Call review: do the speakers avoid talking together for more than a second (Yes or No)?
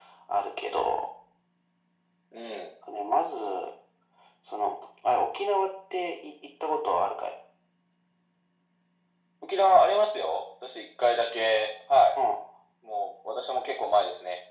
Yes